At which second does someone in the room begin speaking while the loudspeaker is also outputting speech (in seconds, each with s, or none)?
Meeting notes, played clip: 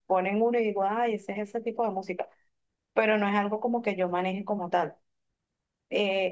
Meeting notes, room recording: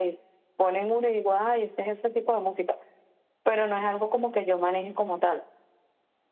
none